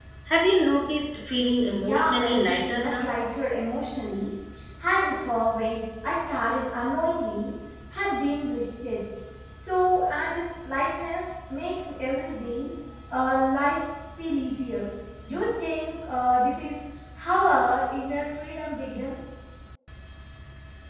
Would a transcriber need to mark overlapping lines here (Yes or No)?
Yes